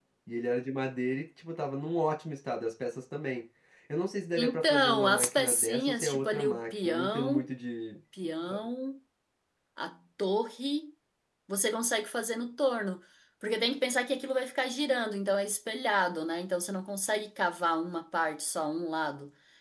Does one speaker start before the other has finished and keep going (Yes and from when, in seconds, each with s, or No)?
Yes, from 4.4 s